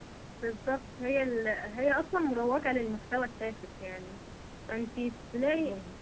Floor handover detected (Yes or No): No